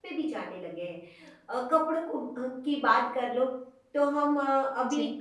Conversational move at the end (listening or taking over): listening